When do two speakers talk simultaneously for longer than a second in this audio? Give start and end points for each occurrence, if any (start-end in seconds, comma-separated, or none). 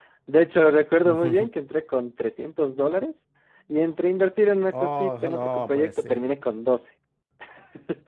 4.8-6.2